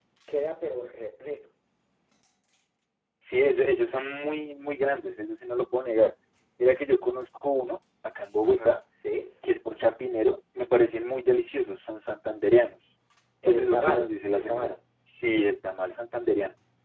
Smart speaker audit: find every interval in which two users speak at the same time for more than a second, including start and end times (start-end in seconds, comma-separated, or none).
13.4-14.8